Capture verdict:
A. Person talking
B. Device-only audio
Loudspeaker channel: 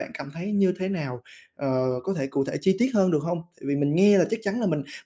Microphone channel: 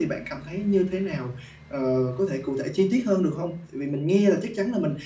B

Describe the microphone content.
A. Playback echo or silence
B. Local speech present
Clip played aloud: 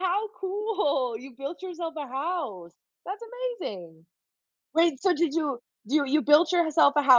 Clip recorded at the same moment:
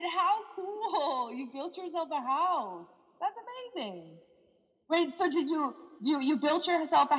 A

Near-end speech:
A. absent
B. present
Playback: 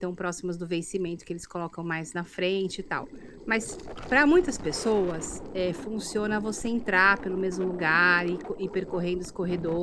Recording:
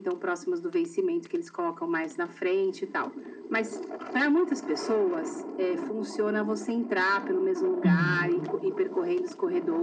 B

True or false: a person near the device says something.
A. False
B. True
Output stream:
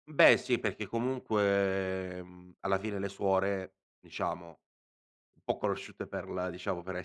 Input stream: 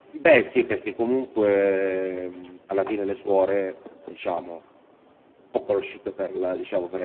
A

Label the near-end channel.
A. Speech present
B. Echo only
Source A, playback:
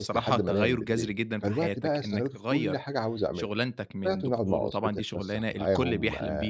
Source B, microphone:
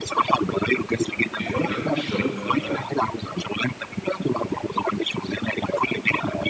A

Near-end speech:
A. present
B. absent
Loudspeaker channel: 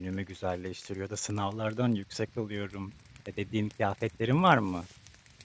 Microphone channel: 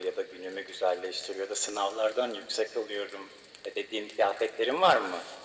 B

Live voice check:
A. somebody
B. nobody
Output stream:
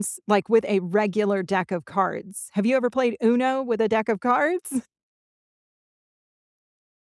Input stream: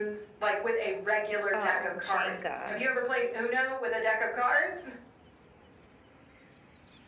A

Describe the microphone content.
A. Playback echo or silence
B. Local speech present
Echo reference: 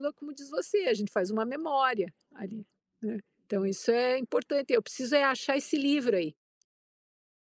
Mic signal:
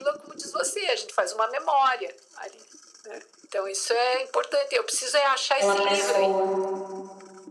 B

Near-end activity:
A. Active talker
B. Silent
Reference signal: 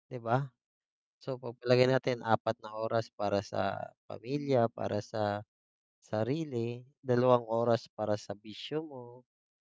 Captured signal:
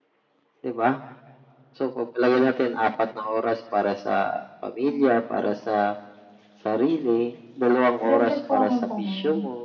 A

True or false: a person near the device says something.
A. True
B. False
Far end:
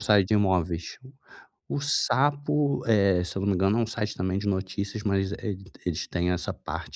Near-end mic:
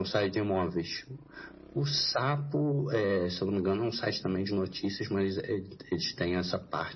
B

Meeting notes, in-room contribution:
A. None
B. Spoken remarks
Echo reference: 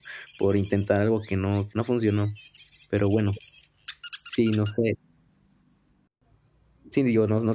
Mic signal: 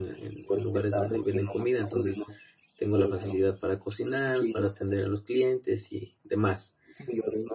B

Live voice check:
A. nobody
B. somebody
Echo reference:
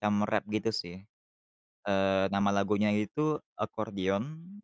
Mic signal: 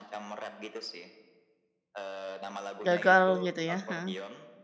B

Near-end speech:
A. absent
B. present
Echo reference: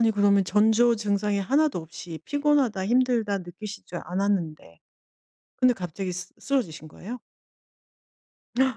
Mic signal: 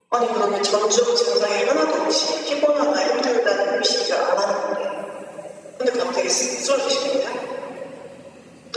A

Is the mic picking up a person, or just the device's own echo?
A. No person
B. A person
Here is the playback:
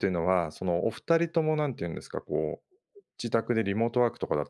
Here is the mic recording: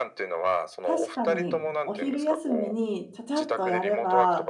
B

